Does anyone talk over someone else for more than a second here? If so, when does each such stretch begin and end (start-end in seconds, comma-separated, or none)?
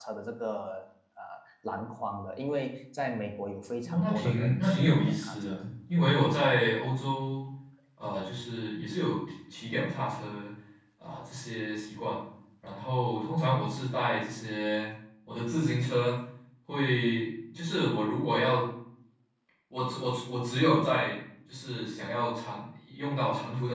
3.8-5.6